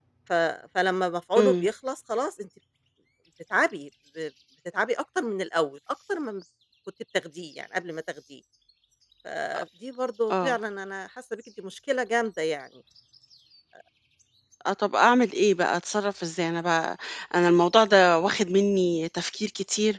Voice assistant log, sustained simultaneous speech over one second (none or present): none